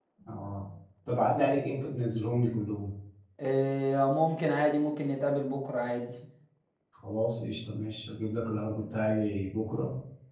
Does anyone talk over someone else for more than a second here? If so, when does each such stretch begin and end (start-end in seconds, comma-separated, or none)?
none